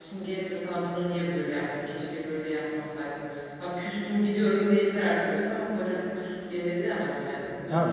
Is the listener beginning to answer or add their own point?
Yes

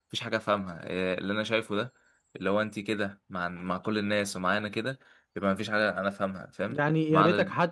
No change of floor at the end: No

